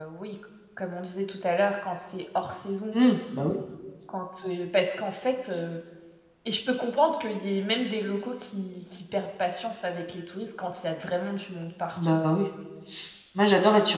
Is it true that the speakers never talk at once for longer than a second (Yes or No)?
Yes